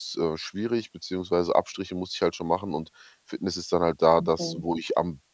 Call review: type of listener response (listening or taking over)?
listening